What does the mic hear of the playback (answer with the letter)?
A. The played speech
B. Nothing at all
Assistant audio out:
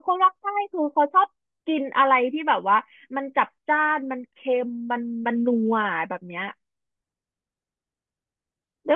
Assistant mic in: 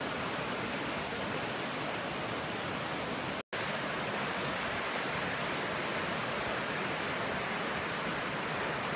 B